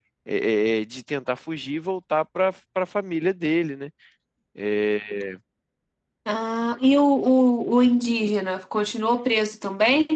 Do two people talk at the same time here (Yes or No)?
No